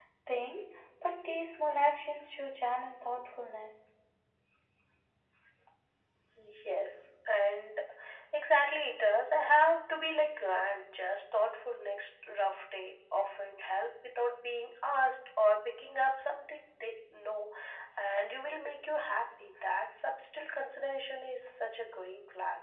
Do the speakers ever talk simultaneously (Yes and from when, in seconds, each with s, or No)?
No